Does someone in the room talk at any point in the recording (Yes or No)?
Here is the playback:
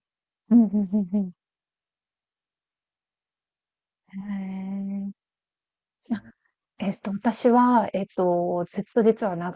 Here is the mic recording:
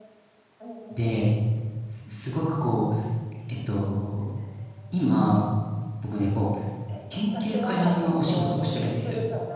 Yes